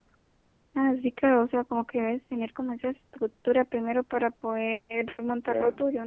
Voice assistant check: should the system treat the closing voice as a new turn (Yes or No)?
Yes